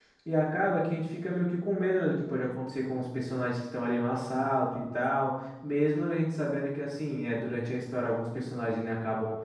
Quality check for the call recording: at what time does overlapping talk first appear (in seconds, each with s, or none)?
none